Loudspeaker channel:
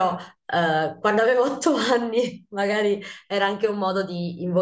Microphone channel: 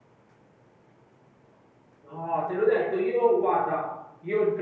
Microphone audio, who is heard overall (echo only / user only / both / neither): user only